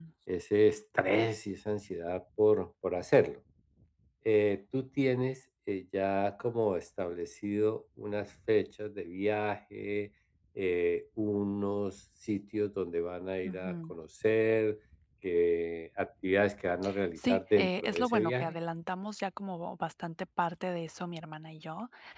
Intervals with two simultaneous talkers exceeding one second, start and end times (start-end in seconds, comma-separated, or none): 17.2-18.6